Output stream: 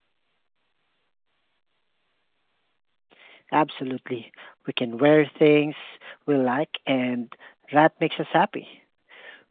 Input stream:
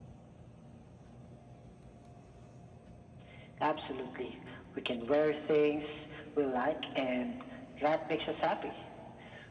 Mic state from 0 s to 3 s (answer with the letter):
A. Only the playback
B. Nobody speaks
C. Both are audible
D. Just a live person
B